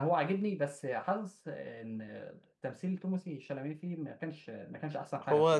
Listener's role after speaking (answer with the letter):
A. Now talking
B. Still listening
A